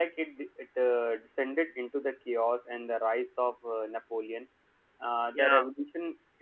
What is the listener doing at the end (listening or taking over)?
listening